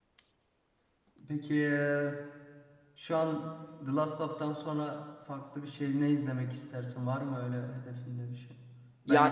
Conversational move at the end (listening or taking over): listening